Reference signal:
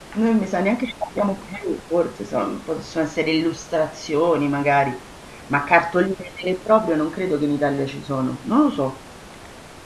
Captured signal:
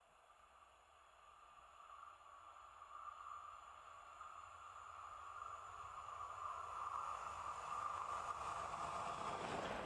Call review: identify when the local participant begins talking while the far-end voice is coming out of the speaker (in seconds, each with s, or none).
none